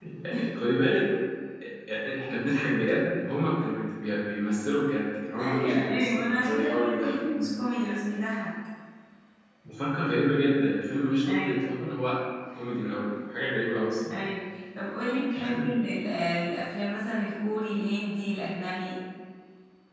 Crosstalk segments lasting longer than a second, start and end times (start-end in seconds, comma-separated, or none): 5.4-7.5